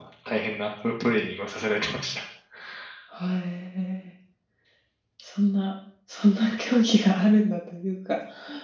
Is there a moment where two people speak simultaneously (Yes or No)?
No